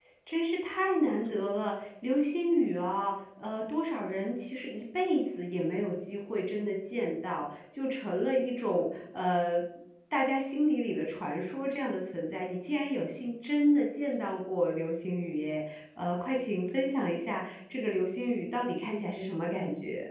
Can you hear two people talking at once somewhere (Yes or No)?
No